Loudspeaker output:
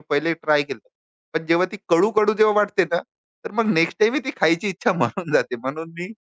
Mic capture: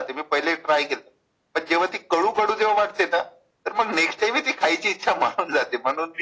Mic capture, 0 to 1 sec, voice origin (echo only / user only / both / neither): echo only